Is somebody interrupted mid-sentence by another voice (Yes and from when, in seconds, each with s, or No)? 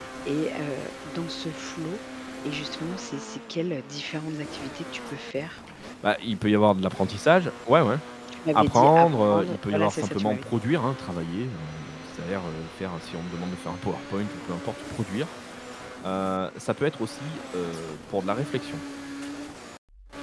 Yes, from 8.5 s